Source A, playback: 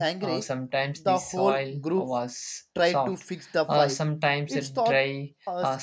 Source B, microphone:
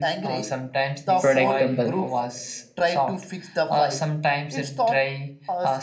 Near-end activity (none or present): present